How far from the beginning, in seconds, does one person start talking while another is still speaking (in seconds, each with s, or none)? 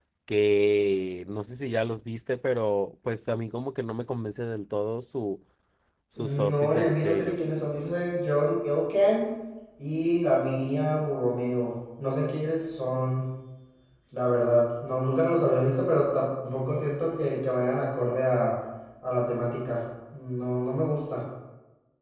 6.2 s